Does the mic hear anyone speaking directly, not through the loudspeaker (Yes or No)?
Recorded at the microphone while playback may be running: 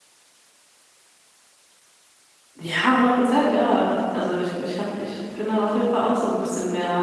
Yes